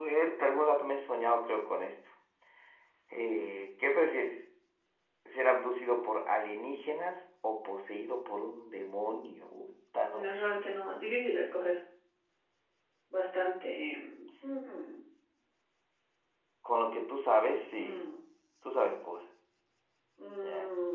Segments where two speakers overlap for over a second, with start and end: none

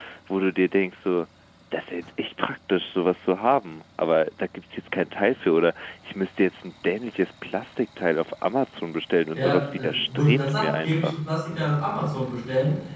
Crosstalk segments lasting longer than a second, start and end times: 9.3-11.2

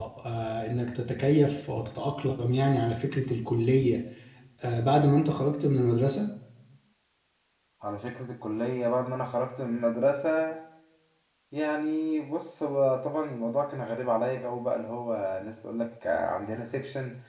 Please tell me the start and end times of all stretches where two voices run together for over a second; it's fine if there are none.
none

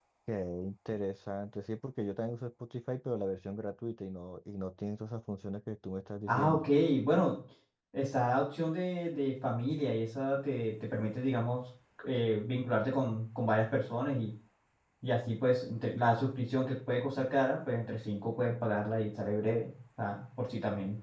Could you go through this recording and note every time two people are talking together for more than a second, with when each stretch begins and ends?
none

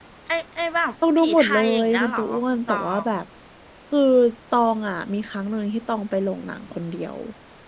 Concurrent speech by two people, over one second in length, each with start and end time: 1.2-3.0

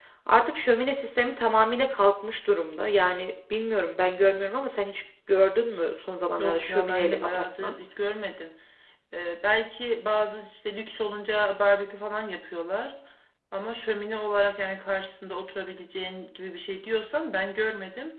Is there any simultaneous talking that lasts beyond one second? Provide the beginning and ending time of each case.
6.4-7.7

